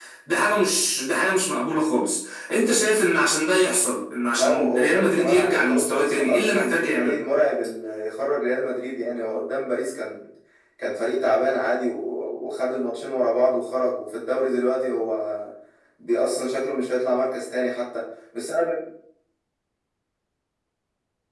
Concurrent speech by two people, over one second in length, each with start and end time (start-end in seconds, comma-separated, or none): 4.4-7.2